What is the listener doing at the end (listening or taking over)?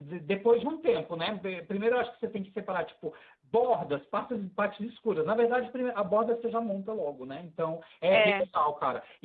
listening